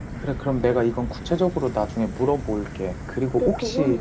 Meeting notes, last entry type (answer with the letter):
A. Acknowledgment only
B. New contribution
B